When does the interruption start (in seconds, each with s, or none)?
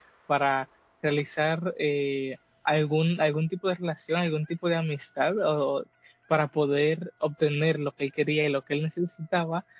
none